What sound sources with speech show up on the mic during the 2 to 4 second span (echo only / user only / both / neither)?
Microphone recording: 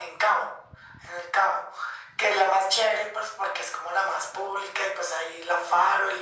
echo only